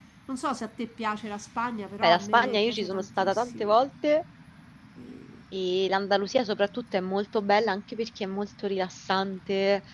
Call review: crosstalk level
present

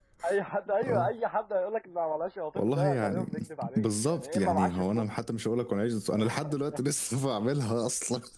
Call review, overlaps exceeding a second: present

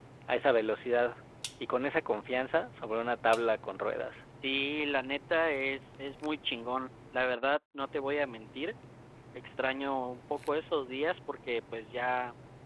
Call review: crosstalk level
none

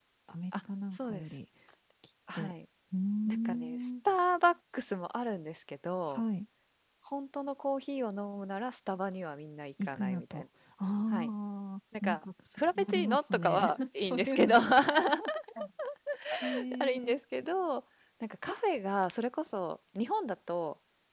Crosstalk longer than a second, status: present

